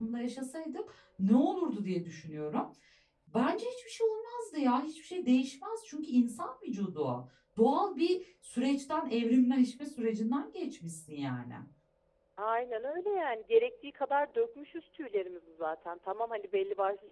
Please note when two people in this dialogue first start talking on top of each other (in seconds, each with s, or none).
none